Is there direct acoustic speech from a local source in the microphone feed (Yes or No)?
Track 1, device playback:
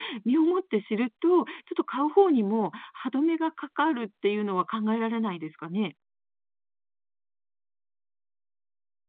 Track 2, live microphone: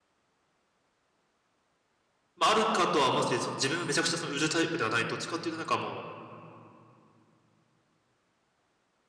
Yes